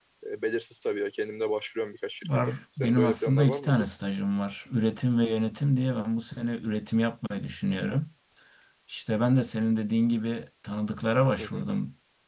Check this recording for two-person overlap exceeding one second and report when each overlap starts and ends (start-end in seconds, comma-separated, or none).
2.2-3.9